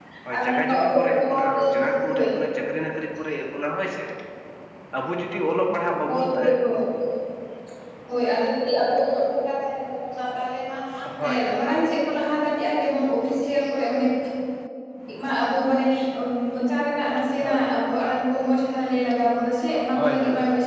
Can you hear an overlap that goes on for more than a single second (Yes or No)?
Yes